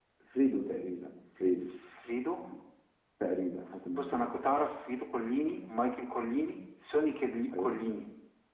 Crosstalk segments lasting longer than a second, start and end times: none

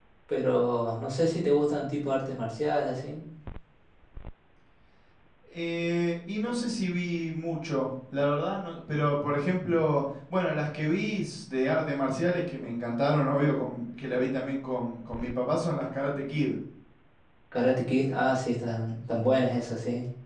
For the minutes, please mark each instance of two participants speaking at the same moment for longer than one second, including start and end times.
none

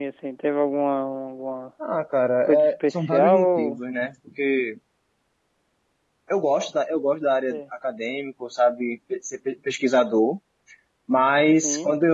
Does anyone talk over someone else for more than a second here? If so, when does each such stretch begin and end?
2.4-3.8

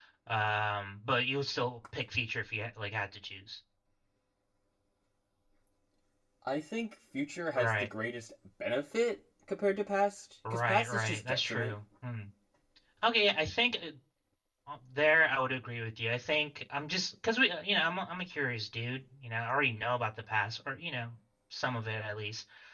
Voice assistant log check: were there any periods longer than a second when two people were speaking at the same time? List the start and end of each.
10.5-11.7

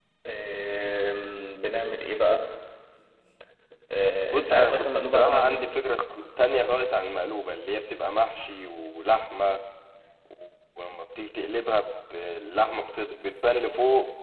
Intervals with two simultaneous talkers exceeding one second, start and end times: 4.3-5.6

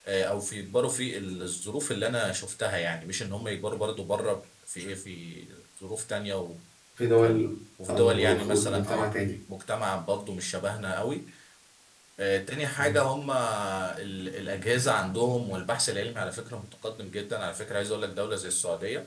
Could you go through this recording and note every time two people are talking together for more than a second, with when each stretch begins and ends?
7.9-9.1

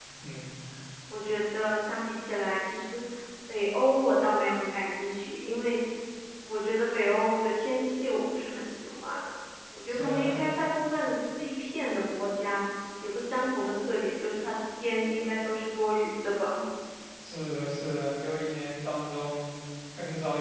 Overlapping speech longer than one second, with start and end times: none

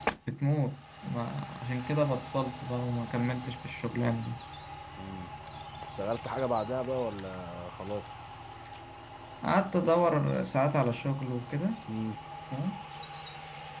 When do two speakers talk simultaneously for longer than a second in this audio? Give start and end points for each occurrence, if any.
none

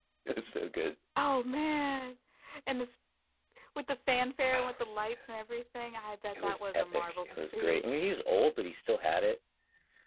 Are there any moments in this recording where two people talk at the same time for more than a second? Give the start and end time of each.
6.4-7.8

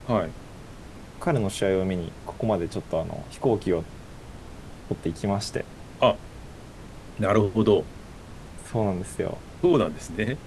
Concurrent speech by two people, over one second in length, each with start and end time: none

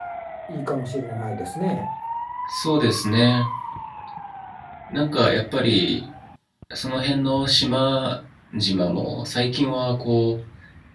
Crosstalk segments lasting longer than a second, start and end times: none

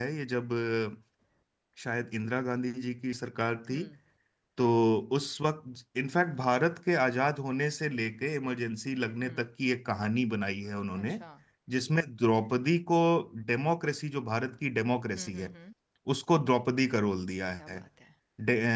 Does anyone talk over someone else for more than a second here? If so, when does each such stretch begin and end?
none

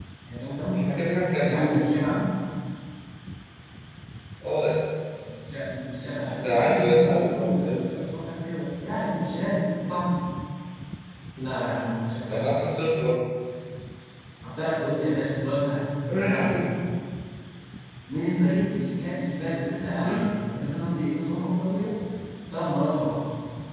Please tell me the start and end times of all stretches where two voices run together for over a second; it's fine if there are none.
6.4-8.0

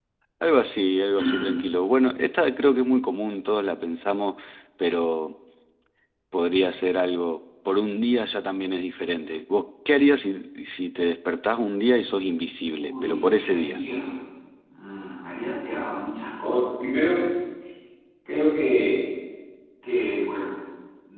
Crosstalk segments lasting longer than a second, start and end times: 12.6-13.8

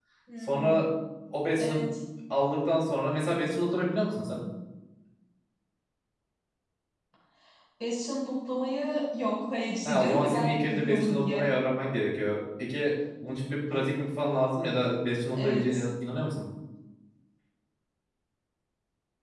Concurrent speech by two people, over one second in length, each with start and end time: 9.8-11.5

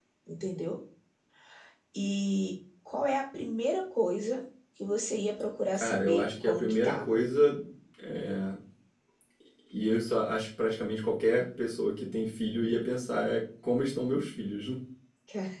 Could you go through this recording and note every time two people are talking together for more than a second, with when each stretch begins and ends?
5.7-7.2

